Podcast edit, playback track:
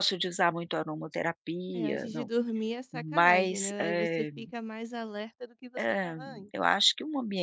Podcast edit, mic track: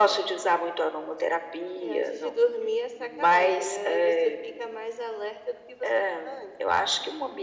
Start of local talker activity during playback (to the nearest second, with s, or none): none